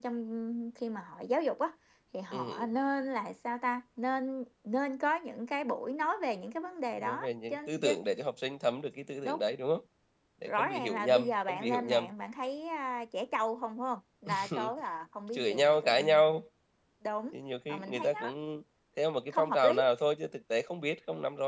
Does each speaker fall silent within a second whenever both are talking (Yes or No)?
No